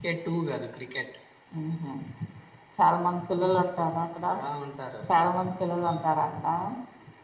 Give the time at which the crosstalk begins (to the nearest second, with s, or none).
none